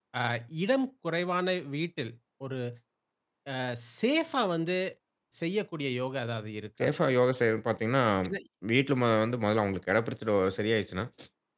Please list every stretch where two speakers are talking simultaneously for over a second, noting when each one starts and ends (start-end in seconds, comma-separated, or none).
none